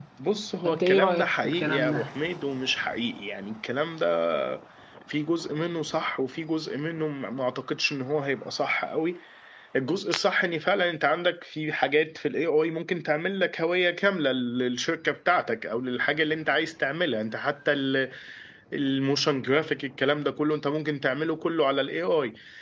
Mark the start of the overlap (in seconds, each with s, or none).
0.7 s